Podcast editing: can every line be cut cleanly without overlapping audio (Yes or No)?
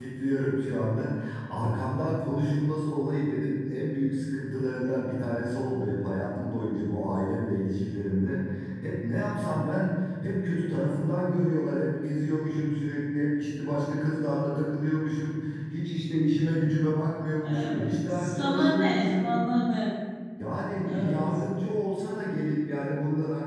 No